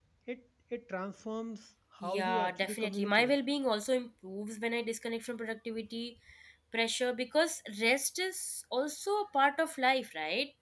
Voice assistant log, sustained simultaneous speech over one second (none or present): present